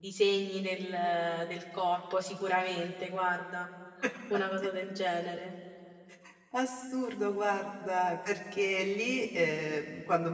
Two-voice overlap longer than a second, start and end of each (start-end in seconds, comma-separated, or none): none